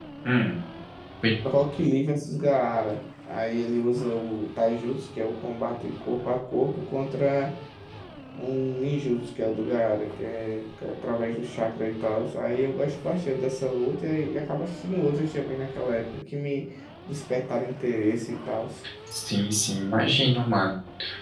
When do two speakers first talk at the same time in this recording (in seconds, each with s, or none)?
none